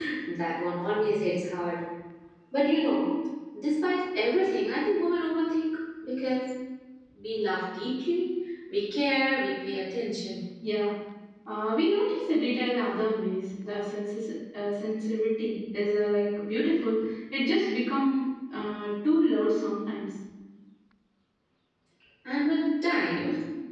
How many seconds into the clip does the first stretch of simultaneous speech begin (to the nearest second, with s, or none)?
none